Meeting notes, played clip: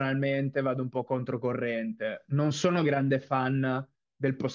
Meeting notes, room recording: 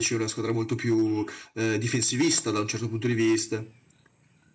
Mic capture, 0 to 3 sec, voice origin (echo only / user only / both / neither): user only